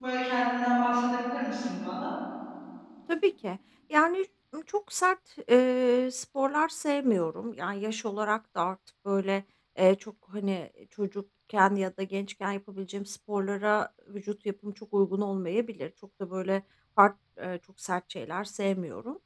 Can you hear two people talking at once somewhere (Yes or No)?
No